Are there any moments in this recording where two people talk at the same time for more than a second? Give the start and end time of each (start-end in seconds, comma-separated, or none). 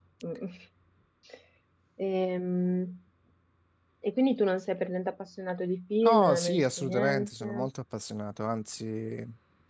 6.0-7.7